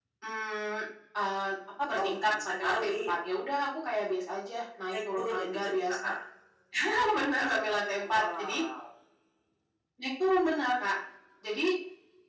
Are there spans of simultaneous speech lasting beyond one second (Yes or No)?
Yes